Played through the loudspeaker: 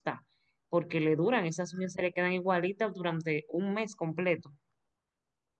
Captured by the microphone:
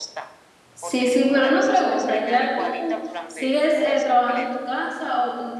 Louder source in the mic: user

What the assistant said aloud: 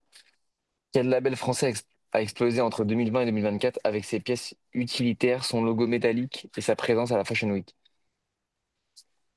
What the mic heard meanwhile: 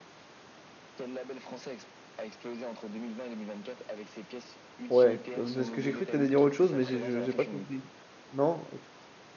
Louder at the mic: user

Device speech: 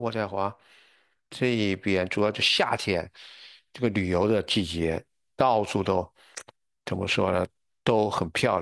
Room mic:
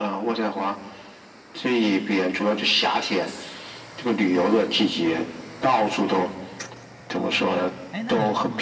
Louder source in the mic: echo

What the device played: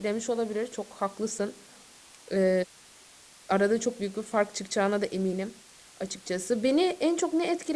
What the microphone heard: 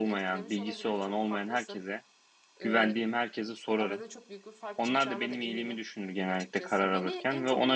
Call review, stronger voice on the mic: user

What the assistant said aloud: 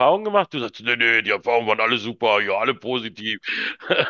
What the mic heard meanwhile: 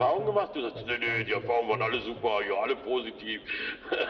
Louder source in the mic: echo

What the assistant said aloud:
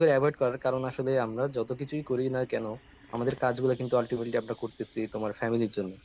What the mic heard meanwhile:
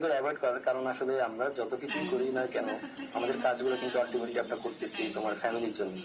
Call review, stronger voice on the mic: echo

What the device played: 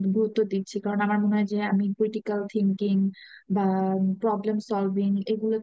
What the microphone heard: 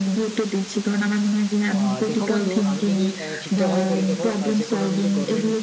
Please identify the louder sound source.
echo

